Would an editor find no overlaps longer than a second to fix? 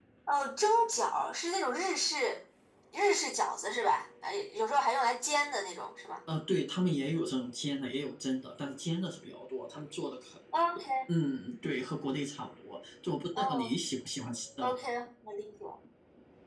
Yes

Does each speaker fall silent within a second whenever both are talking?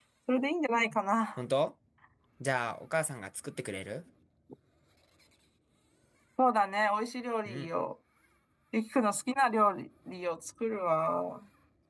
Yes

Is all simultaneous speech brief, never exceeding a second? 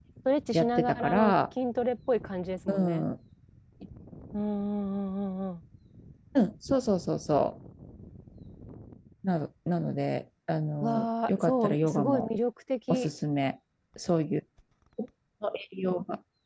No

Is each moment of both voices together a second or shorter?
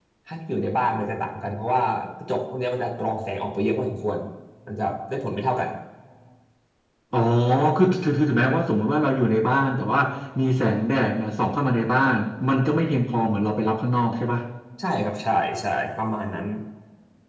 Yes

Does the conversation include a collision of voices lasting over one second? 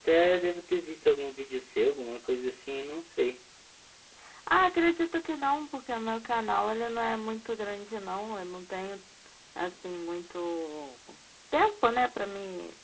No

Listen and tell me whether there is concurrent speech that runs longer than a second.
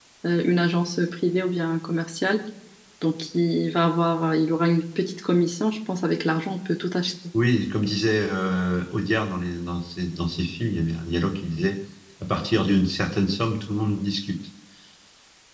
No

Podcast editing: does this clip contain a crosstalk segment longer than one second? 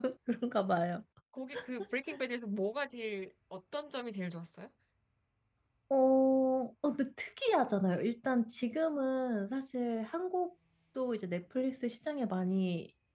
No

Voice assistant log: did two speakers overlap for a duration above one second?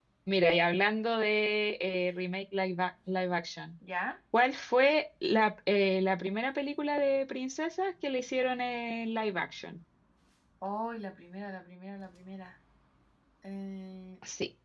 No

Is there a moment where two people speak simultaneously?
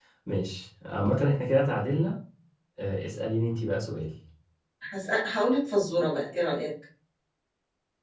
No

